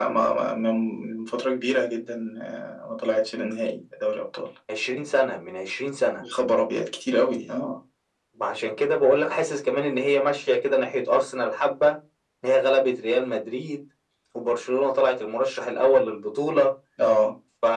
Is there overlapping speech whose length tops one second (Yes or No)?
No